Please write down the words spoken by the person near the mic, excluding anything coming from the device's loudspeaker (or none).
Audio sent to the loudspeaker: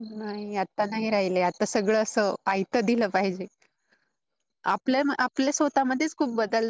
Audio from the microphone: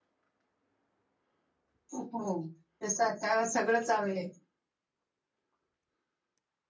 हो तसं आता सगळंच हवे